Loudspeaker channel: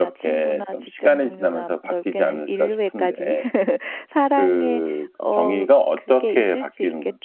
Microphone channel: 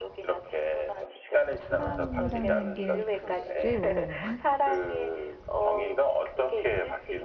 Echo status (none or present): present